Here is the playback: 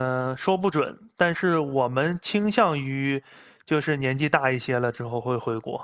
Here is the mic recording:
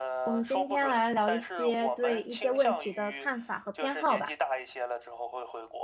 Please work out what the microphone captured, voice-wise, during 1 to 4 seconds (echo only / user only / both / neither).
both